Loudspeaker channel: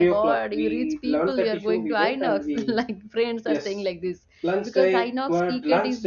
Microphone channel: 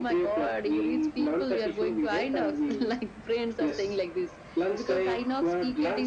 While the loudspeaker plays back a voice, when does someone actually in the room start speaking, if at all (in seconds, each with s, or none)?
none